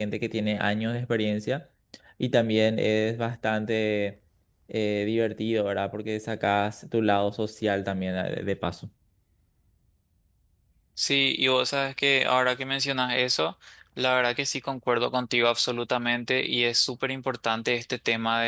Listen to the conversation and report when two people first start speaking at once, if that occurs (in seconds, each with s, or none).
none